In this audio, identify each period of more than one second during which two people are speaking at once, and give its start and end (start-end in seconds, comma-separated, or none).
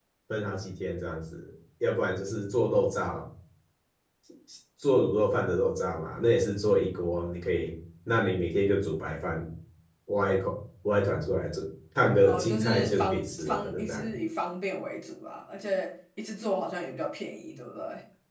12.2-14.1